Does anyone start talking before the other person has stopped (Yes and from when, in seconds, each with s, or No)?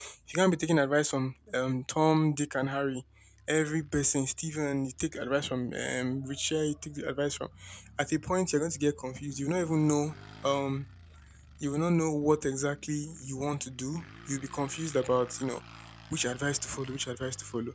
No